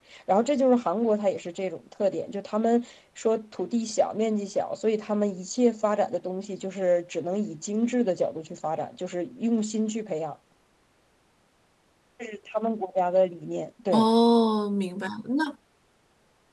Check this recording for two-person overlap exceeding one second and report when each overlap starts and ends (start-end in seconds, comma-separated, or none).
none